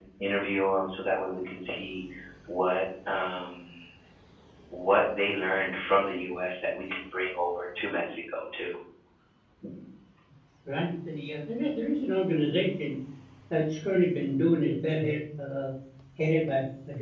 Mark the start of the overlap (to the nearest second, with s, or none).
none